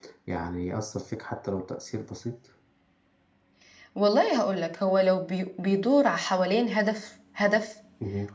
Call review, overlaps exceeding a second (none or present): none